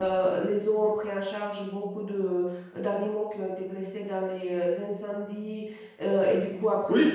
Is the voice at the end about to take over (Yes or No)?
No